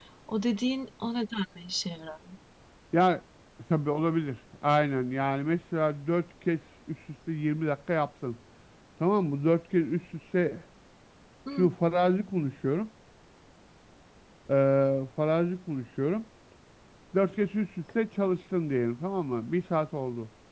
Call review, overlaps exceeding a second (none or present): none